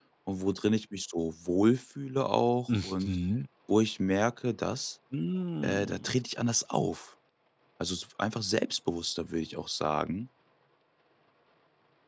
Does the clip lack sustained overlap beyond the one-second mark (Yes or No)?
Yes